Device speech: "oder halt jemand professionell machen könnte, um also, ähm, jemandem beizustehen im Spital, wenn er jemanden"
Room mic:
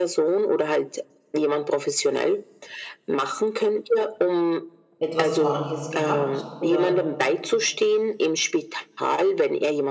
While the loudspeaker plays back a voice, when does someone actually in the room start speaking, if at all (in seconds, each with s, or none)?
5.0 s